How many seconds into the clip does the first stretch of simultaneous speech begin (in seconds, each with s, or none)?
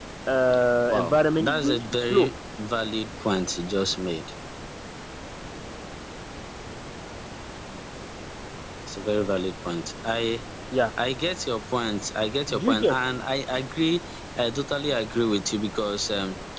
0.9 s